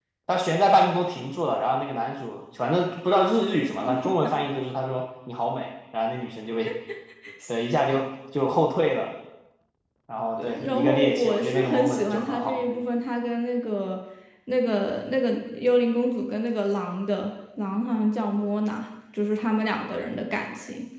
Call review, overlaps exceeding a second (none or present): present